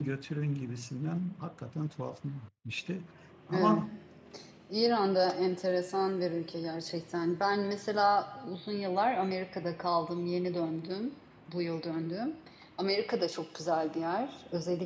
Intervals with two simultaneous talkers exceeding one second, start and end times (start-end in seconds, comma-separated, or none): none